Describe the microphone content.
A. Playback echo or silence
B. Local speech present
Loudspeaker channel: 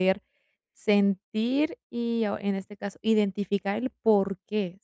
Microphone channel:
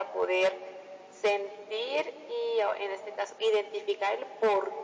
A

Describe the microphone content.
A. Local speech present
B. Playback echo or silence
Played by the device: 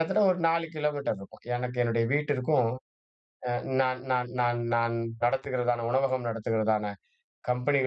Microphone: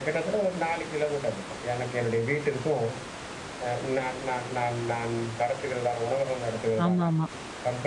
A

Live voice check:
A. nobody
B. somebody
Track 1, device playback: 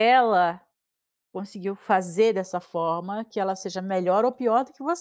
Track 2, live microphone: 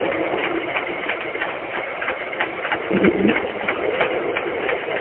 B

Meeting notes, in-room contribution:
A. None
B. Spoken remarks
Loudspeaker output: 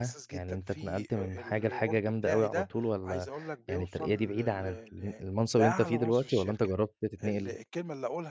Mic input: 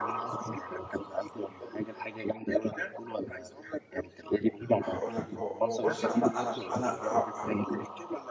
B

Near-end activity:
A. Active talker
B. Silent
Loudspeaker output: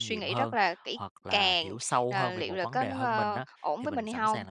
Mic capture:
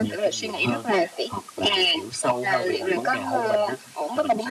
B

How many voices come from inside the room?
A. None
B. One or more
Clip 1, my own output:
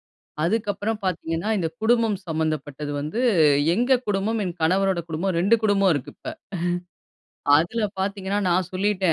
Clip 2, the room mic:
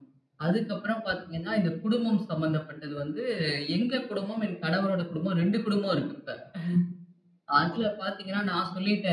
A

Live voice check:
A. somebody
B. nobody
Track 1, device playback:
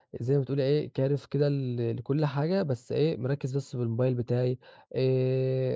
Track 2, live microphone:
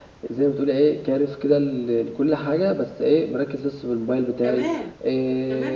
A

